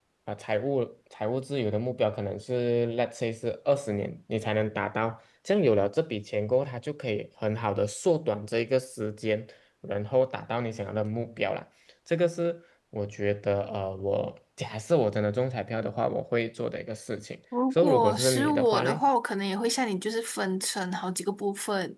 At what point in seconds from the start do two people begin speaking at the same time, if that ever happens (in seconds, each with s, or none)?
17.5 s